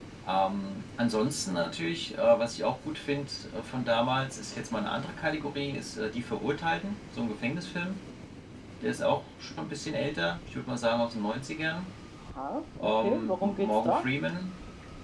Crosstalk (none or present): present